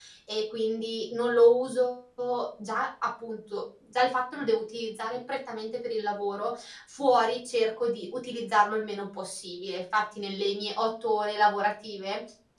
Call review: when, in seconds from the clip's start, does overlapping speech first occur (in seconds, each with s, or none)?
none